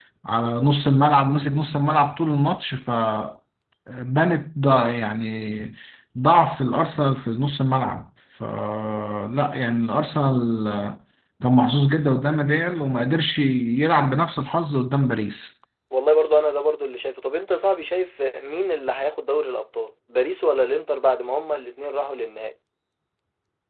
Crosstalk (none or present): none